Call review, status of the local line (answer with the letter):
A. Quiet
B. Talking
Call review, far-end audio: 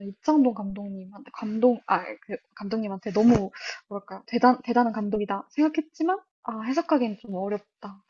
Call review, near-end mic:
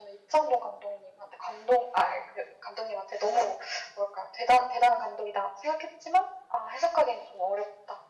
A